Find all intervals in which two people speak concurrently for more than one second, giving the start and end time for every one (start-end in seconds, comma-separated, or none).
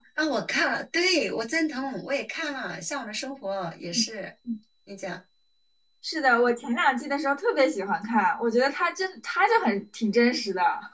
none